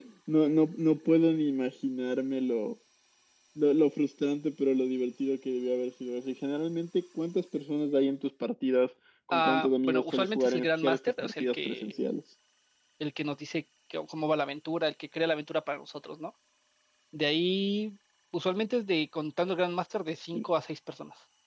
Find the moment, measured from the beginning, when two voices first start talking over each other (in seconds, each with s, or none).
9.3 s